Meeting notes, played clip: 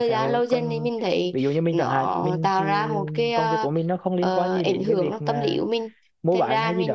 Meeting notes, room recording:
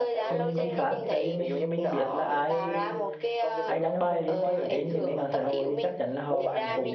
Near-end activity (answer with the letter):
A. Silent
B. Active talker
B